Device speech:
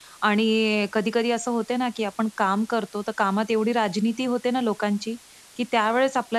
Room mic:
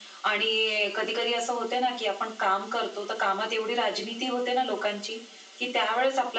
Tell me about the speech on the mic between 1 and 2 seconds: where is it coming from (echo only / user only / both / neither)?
echo only